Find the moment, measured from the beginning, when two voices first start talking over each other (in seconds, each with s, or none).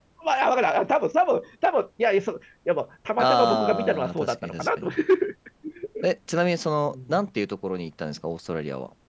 3.2 s